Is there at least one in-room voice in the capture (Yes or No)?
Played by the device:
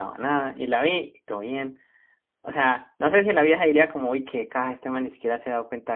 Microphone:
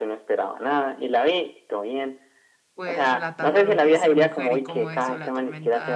Yes